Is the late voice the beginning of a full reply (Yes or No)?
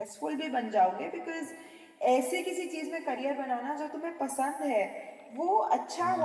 No